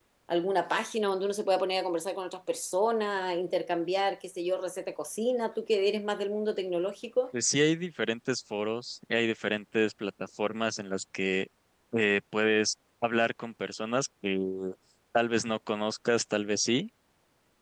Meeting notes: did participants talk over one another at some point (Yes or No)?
No